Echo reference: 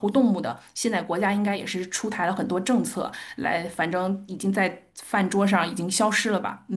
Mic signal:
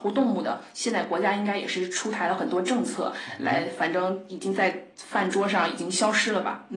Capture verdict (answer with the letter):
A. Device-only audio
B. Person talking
B